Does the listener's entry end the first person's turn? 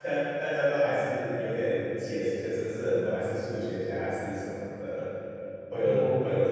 No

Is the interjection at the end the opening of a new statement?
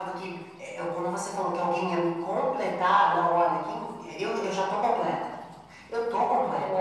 Yes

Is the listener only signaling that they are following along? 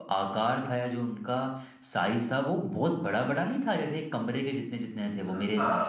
No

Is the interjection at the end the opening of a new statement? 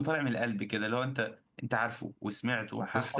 Yes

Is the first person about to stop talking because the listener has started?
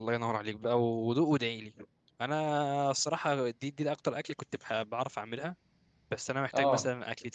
No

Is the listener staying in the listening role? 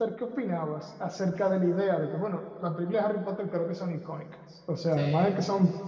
Yes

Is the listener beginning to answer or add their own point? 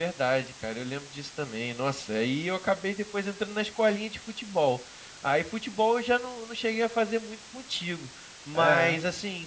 No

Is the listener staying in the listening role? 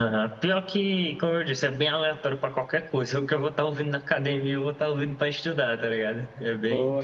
Yes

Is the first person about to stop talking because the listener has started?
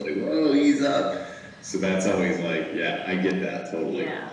Yes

